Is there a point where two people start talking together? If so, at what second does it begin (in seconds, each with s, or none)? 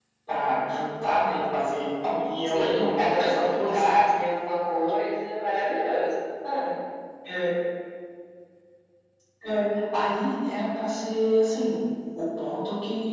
2.4 s